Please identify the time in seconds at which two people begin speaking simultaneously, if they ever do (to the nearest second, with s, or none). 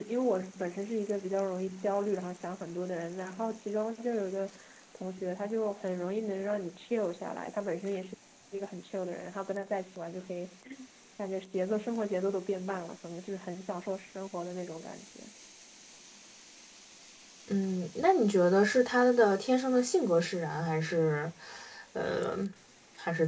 none